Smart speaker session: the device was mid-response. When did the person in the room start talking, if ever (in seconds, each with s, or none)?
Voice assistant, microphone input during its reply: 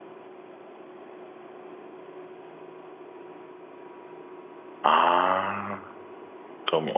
4.8 s